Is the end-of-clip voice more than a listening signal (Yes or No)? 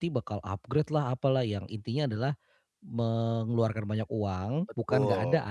No